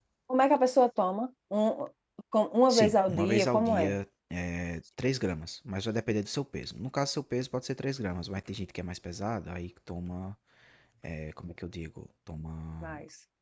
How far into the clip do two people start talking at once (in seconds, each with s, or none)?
2.7 s